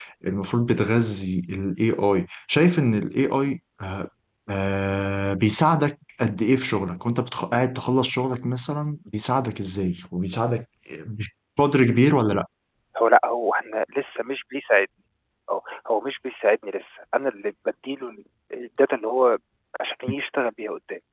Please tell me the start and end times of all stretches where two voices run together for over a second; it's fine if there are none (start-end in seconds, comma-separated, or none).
none